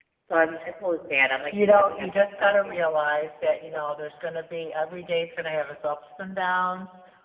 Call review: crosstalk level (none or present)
present